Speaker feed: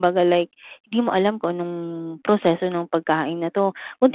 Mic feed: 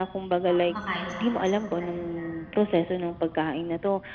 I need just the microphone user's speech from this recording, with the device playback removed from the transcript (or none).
ah, kumakain sa fast food dahil nga,